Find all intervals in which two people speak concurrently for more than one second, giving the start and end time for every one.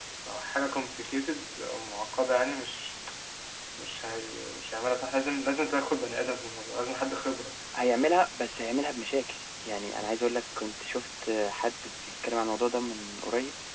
none

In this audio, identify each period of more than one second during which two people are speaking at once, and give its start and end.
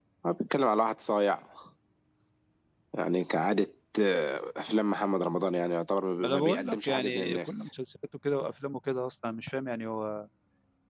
6.2-7.7

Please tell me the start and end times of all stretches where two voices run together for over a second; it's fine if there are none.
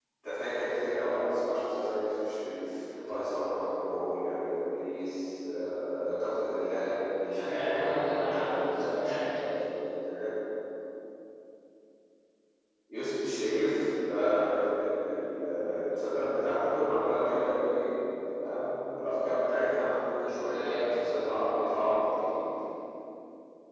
7.3-9.3

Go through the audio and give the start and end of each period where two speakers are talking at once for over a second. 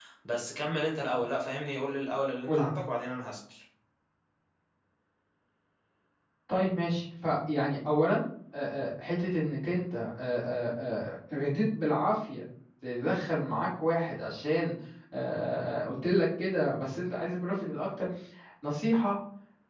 none

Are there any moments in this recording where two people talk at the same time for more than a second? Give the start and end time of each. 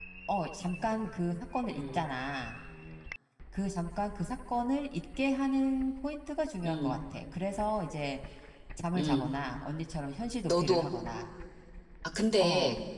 none

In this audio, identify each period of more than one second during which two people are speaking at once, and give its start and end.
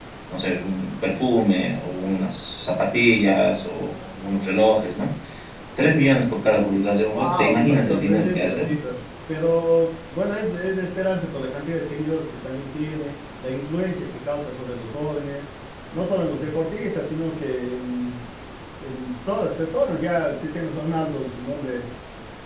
7.1-8.7

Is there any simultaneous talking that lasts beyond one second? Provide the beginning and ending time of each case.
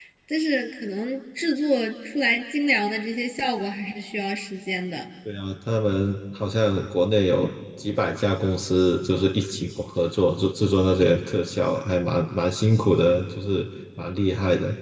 none

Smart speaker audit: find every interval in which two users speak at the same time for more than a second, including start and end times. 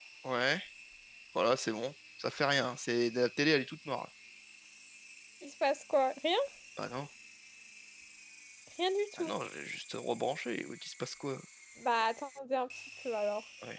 none

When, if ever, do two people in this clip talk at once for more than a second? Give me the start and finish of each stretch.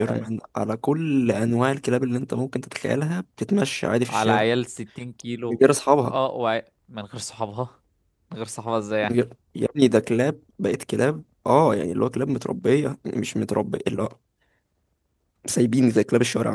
none

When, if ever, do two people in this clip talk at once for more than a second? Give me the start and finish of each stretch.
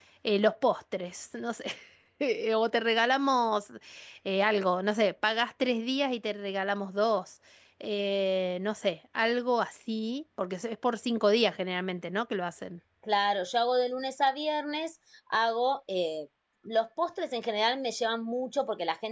none

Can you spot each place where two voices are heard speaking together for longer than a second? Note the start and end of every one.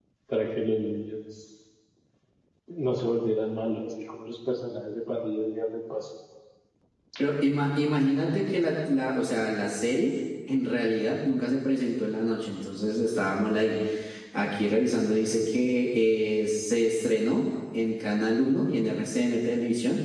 none

